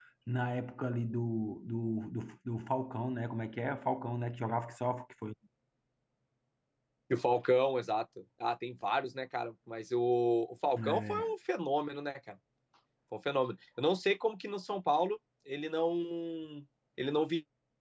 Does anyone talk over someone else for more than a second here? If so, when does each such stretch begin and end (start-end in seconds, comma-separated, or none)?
none